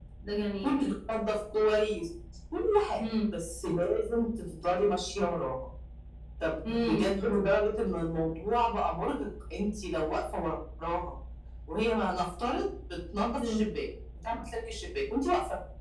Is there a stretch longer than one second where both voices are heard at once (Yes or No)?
No